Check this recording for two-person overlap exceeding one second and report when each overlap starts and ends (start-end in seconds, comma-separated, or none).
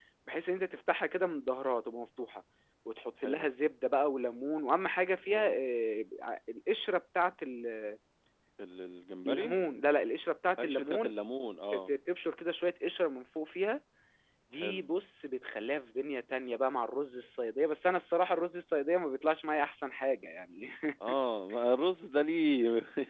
none